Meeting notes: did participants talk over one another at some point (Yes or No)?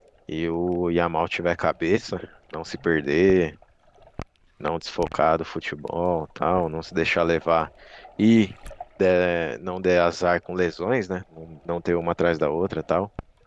No